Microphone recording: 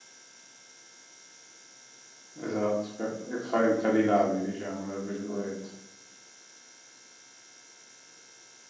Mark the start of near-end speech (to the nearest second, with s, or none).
2 s